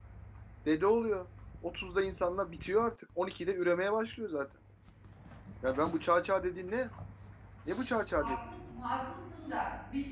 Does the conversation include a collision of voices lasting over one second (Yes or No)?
No